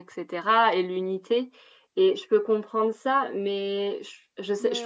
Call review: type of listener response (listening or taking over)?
taking over